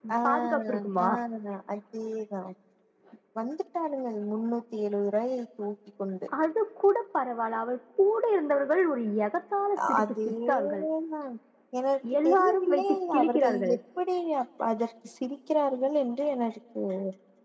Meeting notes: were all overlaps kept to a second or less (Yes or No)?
No